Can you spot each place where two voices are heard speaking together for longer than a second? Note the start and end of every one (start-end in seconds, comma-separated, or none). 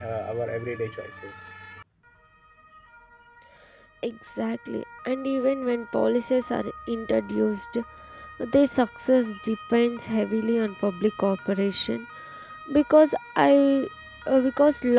none